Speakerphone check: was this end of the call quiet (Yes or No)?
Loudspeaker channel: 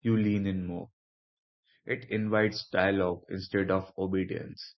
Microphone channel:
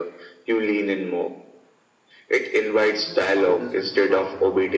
No